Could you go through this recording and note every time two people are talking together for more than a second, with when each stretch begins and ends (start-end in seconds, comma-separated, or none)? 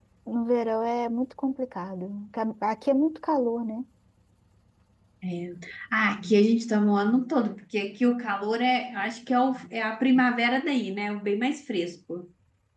none